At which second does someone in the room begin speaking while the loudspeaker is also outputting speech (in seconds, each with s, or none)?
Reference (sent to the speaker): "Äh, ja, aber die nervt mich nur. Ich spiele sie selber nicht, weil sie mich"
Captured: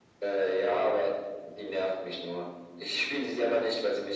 none